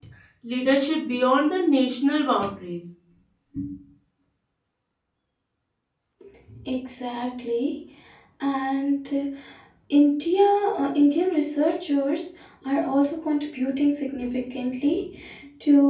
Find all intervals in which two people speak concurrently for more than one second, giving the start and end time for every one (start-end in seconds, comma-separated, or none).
none